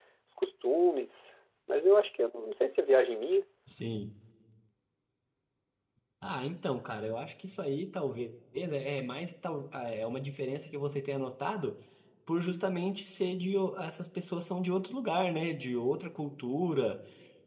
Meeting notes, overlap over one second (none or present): none